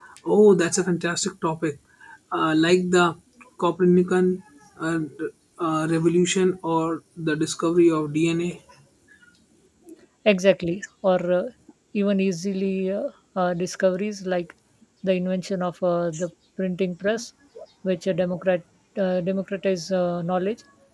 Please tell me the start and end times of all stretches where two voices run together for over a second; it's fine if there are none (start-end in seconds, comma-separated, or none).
none